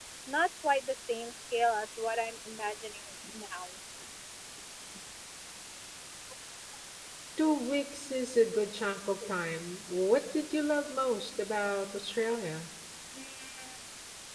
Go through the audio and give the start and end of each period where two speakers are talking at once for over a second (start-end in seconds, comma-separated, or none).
none